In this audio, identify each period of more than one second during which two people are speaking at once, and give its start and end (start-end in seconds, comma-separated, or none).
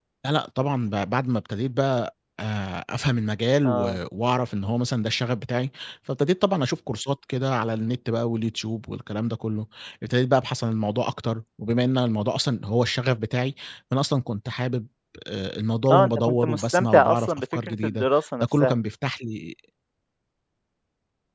15.9-18.1